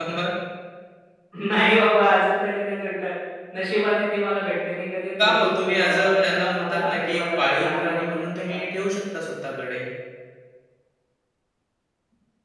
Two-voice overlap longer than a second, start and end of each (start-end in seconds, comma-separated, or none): 5.2-8.6